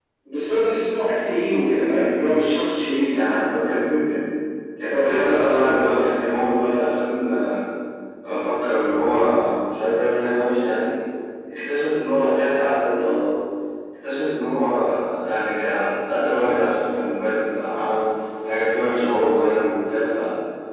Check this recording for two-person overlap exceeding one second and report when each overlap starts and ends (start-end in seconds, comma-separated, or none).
4.9-6.2